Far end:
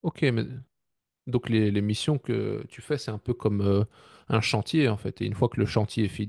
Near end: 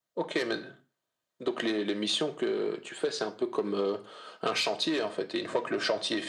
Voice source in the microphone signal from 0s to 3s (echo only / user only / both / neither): echo only